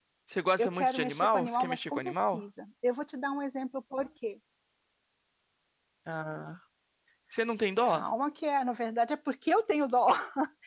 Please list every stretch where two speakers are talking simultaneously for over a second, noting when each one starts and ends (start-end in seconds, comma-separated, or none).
0.6-2.4